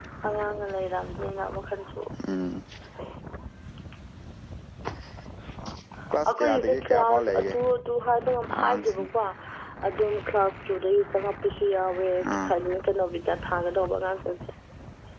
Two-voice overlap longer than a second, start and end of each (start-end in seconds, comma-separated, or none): 6.3-7.5